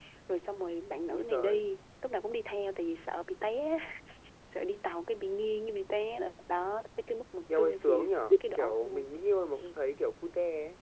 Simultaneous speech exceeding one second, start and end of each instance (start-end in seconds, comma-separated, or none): 7.6-9.1